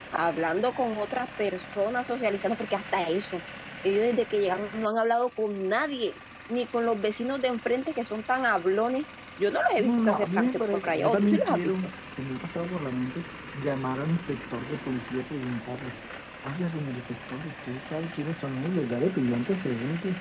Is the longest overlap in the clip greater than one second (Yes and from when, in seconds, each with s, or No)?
Yes, from 9.8 s